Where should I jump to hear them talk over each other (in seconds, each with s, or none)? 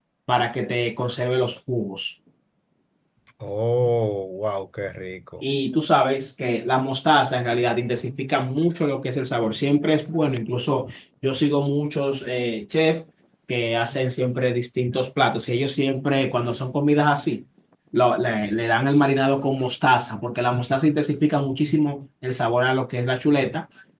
none